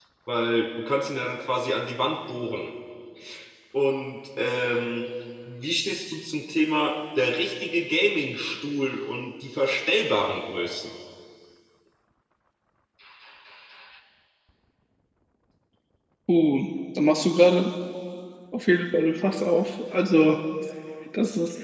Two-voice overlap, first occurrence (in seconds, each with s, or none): none